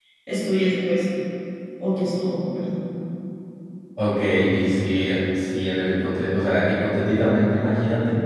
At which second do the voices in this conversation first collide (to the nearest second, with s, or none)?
none